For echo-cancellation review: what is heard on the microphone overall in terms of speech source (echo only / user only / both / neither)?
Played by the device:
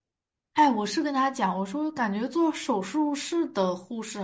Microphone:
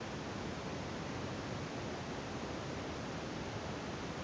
neither